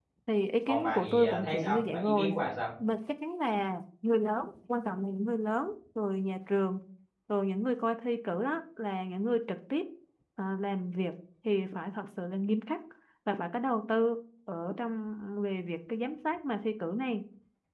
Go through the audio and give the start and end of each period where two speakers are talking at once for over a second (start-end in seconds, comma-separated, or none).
0.7-2.3